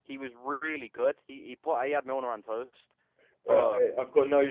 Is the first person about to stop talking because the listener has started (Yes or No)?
Yes